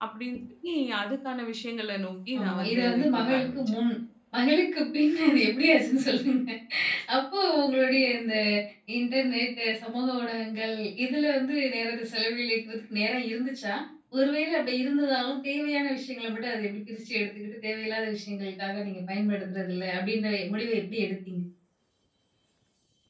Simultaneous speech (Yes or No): Yes